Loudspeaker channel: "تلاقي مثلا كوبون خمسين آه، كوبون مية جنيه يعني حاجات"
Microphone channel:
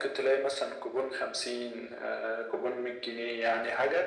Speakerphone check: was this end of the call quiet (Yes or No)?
Yes